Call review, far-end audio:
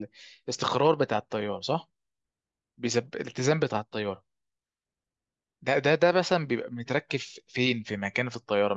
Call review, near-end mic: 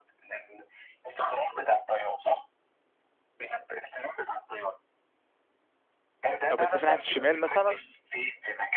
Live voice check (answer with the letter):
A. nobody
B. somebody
B